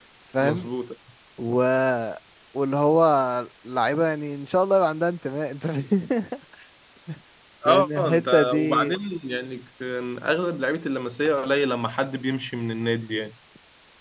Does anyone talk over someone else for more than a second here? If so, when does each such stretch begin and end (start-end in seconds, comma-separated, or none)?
7.6-9.0